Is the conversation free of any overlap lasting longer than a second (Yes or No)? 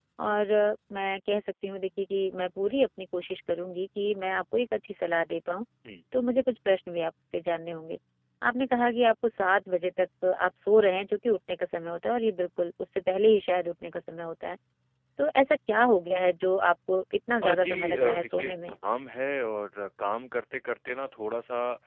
No